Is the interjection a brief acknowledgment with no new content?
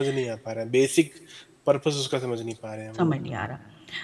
No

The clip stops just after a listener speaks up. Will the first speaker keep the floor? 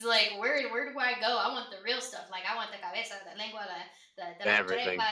Yes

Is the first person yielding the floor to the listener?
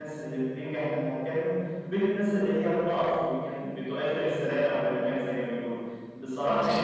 No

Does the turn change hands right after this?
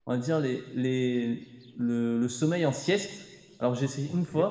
No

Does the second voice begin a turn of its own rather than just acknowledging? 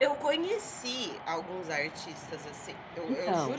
No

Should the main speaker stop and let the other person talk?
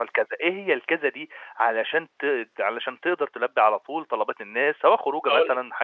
No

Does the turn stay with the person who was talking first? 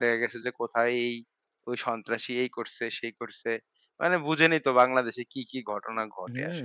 No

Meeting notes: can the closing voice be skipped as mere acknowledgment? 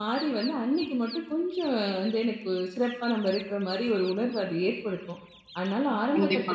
Yes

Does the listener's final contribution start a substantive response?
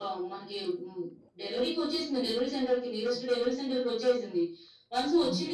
No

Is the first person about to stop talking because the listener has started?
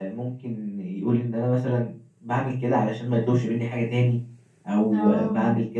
No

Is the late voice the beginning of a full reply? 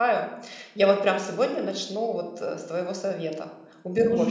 Yes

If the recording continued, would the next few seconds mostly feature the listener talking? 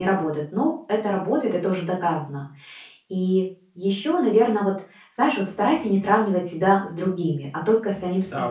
Yes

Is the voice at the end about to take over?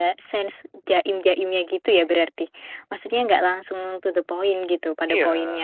Yes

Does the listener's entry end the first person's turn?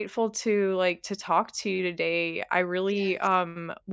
No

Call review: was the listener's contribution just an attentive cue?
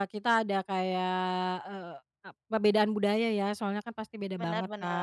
Yes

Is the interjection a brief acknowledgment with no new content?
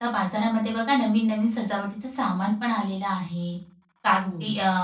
Yes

